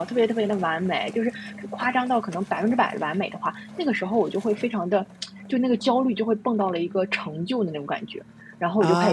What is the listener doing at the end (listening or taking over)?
listening